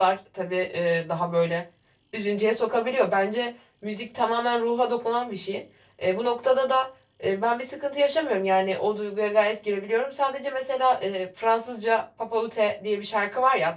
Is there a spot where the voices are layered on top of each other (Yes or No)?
No